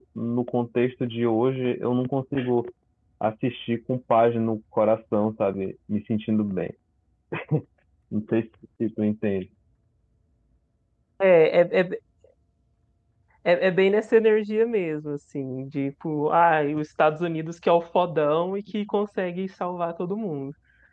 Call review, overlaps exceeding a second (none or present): none